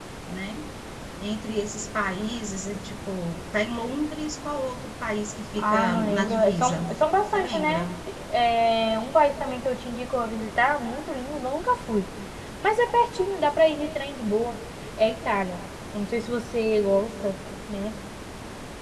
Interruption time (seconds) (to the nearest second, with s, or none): 6 s